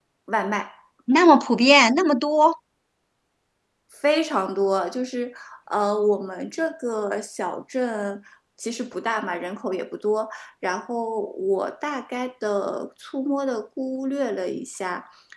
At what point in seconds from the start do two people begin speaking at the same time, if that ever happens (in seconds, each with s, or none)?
none